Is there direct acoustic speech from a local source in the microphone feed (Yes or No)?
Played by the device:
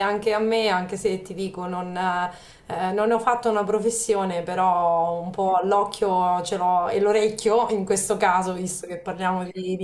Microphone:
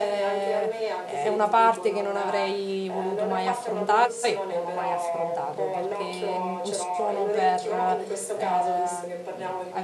Yes